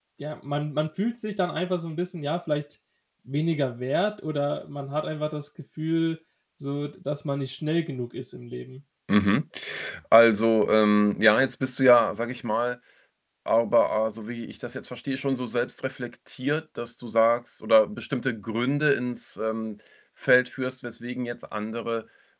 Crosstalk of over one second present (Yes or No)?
No